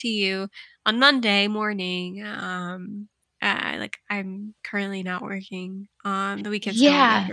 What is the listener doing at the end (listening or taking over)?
taking over